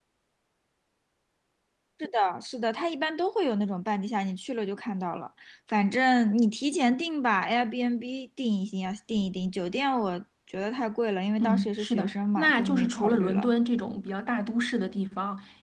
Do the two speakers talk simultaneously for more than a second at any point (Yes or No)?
Yes